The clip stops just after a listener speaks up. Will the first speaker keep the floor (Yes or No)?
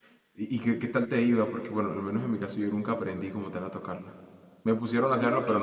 No